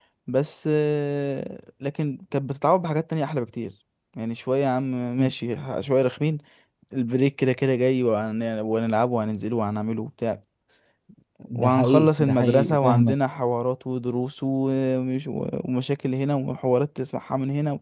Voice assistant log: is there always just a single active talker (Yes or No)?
No